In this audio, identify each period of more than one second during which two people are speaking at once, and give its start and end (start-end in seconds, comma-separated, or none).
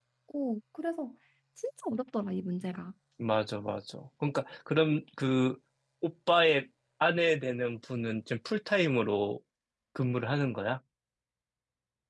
none